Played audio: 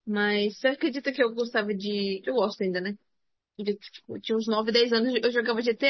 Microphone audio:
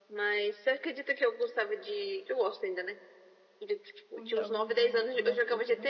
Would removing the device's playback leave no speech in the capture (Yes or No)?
No